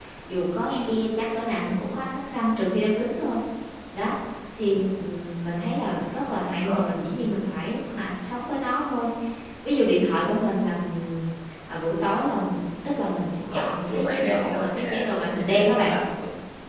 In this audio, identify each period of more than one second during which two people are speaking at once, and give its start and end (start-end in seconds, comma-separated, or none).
13.4-15.9